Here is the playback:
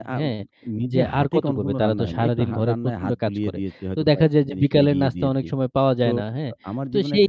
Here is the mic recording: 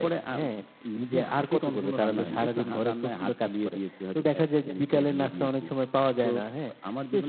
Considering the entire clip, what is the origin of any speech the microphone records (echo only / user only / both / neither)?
both